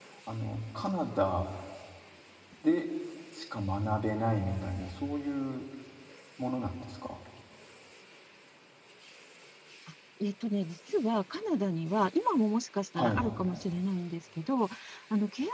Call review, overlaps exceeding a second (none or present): none